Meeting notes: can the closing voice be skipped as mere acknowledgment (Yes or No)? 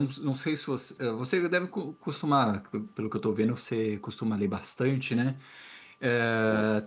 Yes